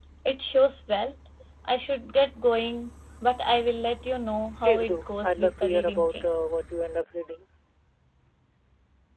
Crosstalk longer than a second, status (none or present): present